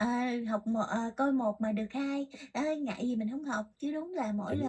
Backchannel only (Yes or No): Yes